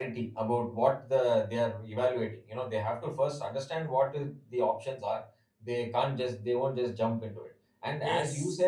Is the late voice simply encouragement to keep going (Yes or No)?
Yes